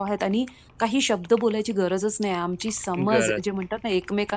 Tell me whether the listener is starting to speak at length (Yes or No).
No